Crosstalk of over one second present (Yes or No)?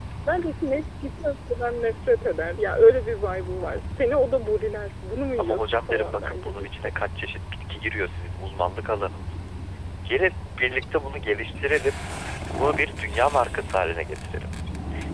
Yes